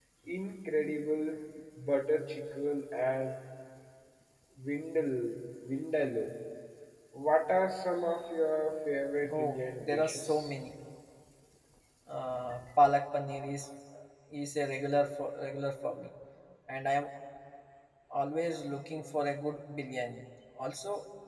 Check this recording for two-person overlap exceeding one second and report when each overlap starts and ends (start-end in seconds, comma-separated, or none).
9.3-10.5